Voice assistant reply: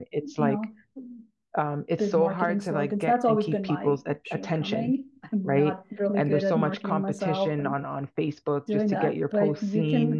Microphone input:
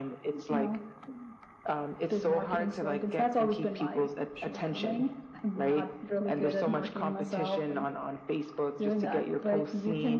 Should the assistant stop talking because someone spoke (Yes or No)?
No